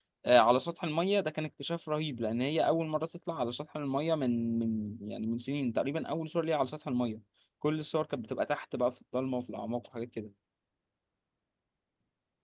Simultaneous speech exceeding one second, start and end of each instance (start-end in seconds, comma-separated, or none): none